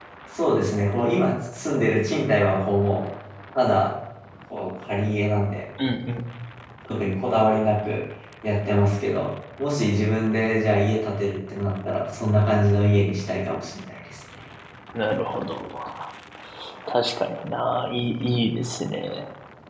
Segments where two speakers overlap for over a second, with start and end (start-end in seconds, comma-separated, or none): none